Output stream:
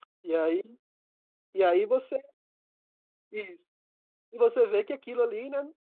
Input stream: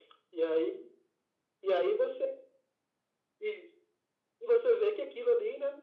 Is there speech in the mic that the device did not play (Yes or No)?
No